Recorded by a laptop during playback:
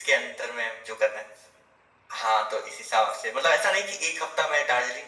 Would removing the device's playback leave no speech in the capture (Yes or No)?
Yes